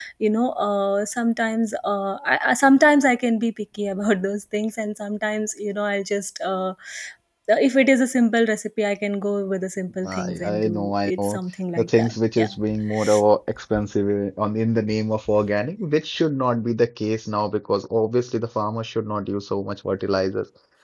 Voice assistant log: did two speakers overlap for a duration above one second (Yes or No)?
Yes